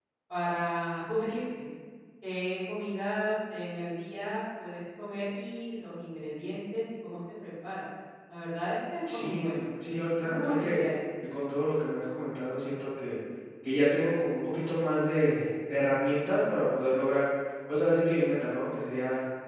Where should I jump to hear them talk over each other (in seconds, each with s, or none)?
9.1 s